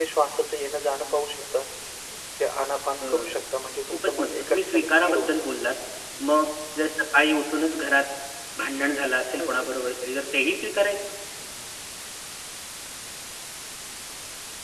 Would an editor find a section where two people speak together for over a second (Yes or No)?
Yes